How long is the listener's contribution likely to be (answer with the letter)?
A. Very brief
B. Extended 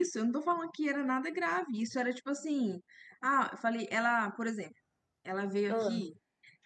A